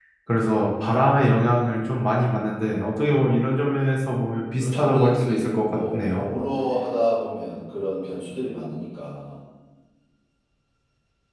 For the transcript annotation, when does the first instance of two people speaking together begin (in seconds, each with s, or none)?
4.6 s